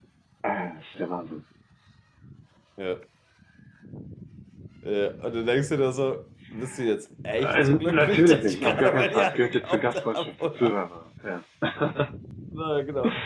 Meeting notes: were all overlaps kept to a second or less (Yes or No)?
No